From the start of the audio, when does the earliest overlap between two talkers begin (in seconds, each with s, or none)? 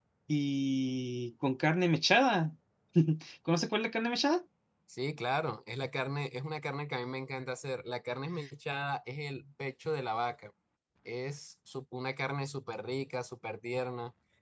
none